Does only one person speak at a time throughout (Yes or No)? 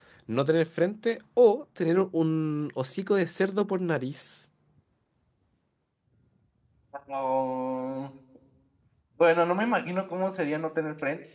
Yes